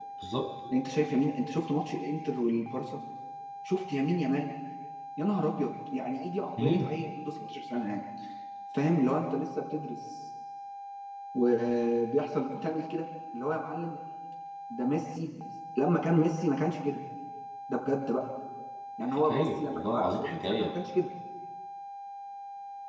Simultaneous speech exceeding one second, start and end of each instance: 19.1-20.7

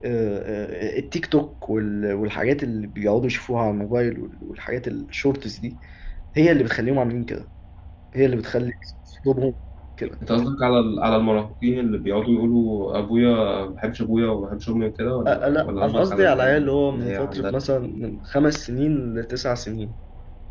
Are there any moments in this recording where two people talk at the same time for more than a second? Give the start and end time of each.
15.3-17.5

